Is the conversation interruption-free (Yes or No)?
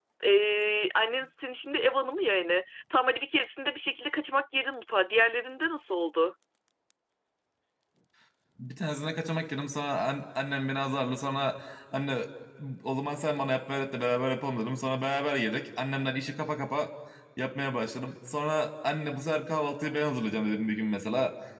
Yes